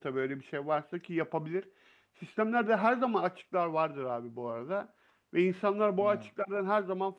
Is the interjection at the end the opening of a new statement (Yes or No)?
No